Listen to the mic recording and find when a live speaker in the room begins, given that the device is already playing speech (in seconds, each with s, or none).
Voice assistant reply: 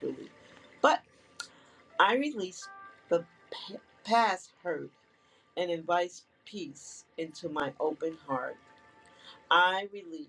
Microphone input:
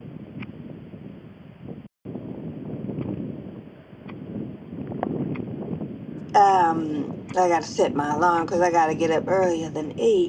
6.3 s